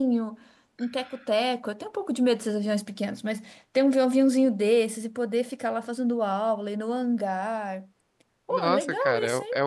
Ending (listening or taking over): taking over